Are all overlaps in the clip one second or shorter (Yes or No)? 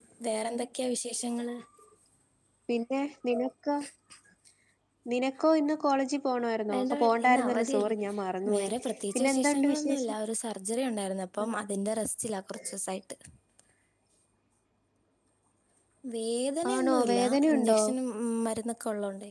No